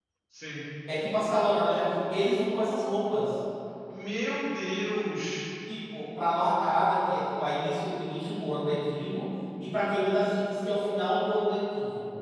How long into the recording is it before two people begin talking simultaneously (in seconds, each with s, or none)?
none